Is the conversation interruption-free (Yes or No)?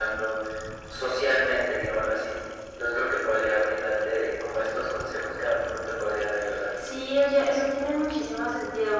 Yes